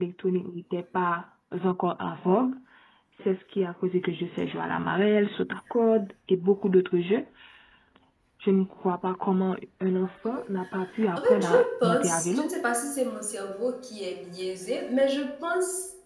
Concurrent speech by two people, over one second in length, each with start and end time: 11.2-12.5

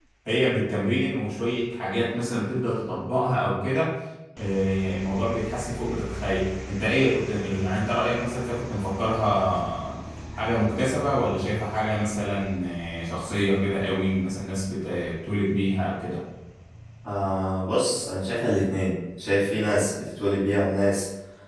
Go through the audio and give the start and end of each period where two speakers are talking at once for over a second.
none

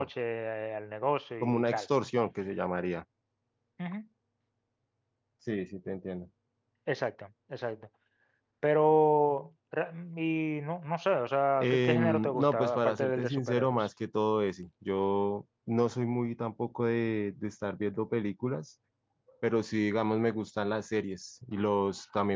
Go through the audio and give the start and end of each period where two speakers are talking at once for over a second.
11.6-13.9

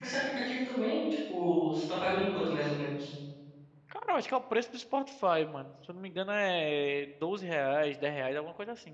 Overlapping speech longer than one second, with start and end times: none

